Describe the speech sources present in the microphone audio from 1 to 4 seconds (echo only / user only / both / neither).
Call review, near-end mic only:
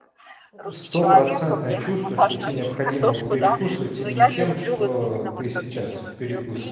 both